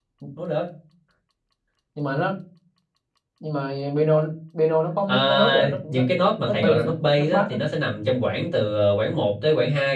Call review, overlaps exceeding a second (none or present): present